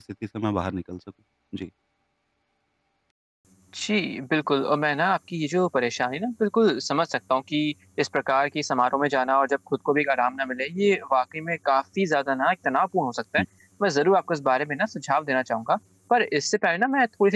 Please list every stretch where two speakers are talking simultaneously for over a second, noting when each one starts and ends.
none

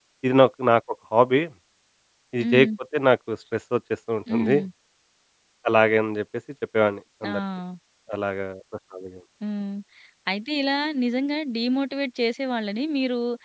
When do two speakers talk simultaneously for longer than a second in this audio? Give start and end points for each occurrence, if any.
none

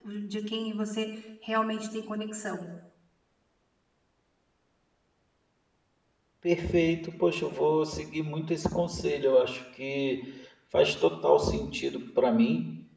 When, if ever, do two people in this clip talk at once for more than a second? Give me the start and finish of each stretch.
none

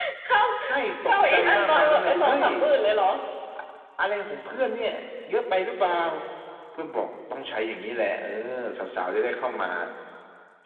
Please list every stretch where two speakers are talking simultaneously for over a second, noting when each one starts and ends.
1.1-2.5

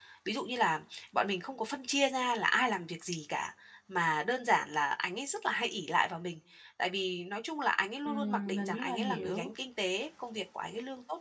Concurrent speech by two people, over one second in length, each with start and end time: 8.1-9.5

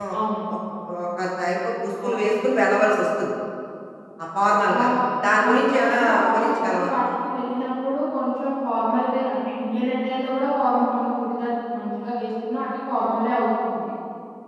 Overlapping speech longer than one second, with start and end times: 5.4-7.0

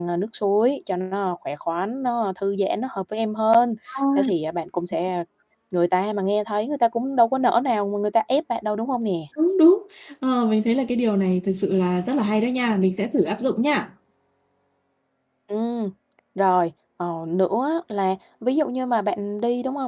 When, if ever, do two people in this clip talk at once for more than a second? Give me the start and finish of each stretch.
none

